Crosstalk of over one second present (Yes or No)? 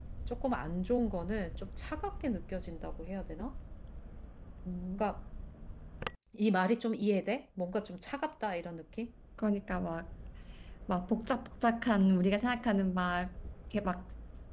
No